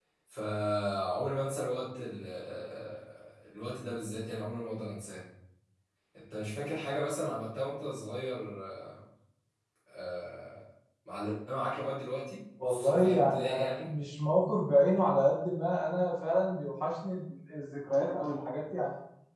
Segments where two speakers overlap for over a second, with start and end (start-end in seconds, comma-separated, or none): 12.6-13.9